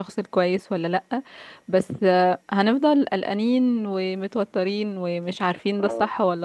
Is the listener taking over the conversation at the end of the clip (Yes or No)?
No